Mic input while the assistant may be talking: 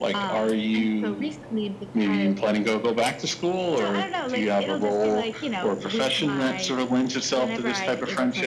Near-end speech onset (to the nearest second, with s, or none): none